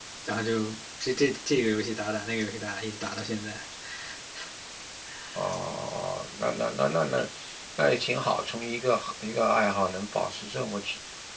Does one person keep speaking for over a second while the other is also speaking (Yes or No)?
No